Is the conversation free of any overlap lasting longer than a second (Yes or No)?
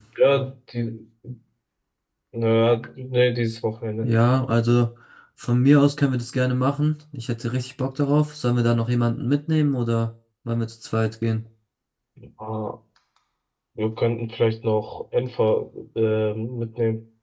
Yes